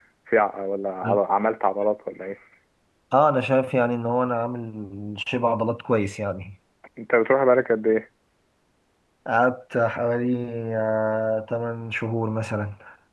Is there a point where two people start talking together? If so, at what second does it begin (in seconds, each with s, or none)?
none